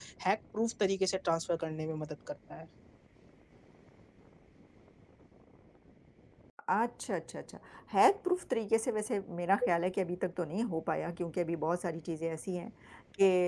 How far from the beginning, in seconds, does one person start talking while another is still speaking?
none

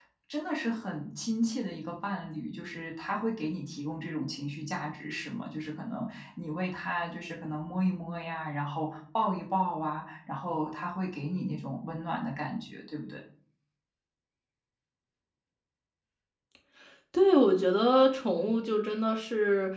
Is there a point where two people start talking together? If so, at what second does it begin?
none

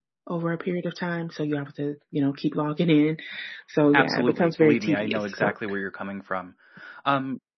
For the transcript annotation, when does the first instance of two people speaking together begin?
3.9 s

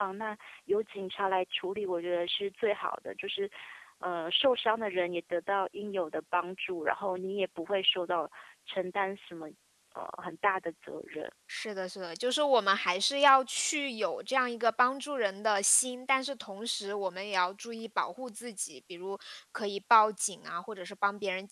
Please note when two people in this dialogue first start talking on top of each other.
none

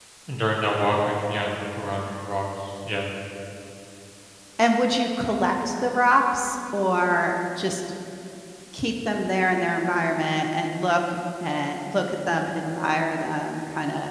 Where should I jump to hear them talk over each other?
none

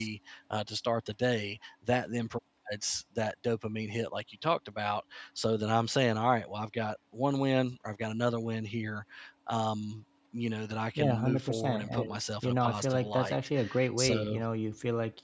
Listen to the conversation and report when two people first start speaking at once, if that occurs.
11.0 s

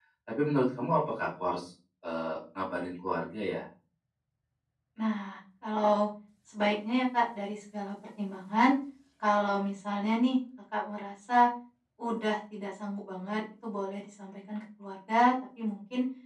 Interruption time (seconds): none

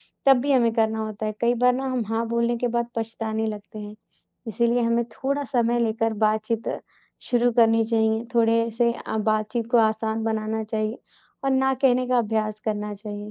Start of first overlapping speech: none

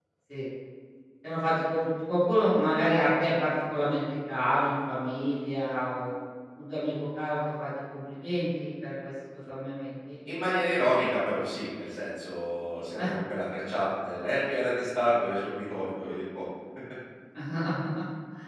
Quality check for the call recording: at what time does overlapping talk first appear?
none

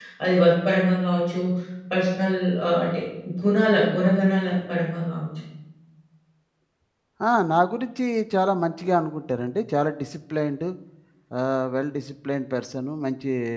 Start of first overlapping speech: none

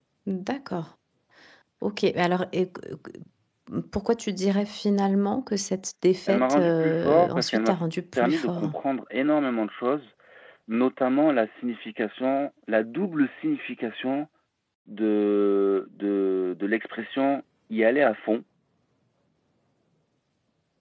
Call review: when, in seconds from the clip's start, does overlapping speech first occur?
6.3 s

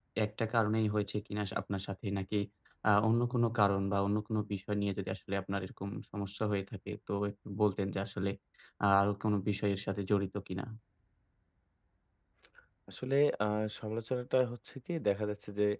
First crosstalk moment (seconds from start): none

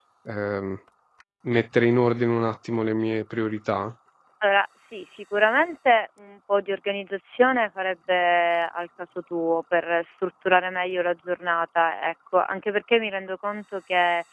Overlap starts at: none

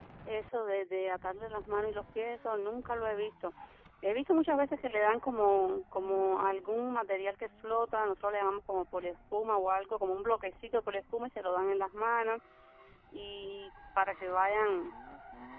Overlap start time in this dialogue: none

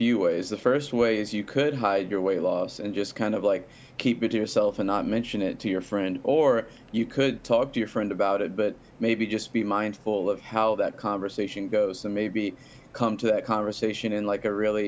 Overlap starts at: none

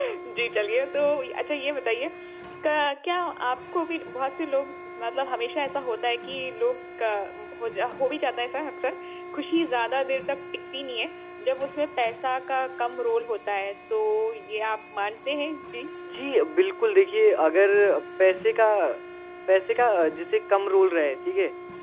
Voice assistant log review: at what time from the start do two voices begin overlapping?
none

